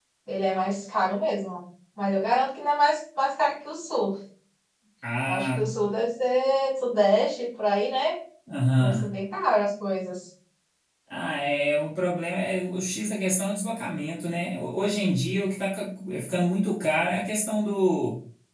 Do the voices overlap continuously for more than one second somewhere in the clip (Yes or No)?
No